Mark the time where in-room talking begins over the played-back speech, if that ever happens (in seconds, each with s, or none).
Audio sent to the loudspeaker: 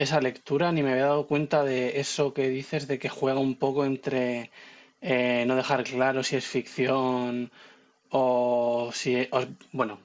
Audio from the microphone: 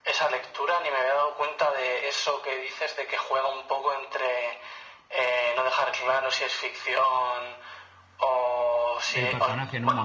9.1 s